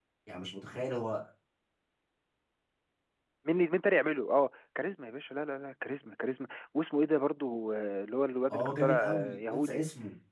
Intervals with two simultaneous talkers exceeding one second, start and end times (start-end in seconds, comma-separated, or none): 8.5-9.8